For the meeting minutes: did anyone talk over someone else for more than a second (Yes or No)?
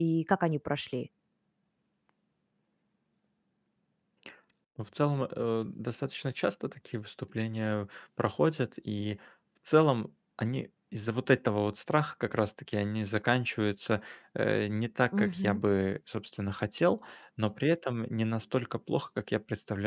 No